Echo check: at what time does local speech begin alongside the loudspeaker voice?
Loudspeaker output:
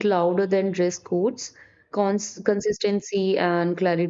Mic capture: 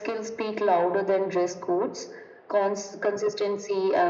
none

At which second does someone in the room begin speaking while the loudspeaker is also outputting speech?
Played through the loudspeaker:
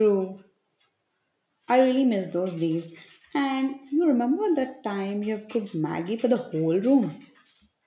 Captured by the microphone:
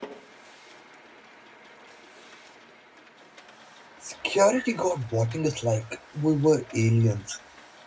4.0 s

